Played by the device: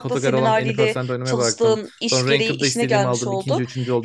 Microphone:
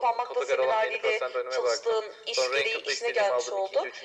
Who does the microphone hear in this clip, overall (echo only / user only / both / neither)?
echo only